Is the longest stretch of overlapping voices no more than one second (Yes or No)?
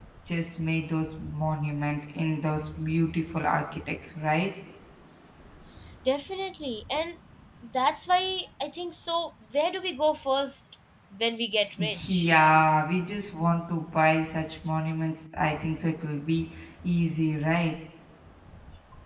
Yes